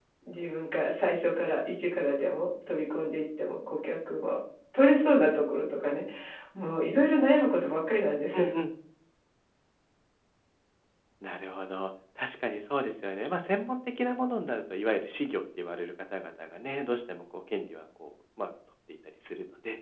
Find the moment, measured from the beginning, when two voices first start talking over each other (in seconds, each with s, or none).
none